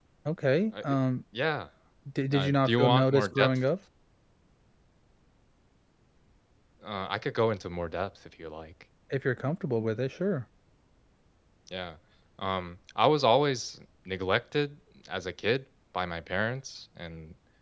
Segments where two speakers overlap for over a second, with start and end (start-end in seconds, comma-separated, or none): 2.3-3.6